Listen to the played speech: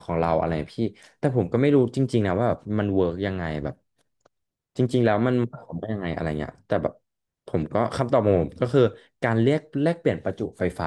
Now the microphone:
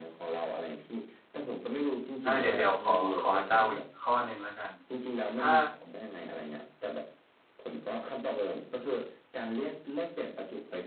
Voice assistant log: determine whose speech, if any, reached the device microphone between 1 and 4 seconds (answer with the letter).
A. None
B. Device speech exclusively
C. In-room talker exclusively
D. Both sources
D